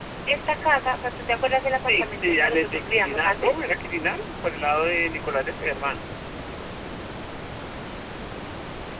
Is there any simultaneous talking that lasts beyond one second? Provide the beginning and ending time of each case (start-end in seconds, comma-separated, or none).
1.9-3.5